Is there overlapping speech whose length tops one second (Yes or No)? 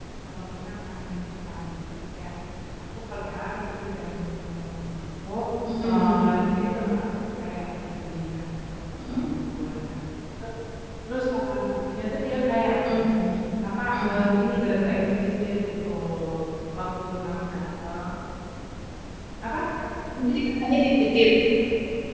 No